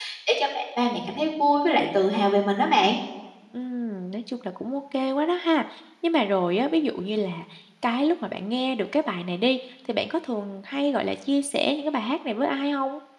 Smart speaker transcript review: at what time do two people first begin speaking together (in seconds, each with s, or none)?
none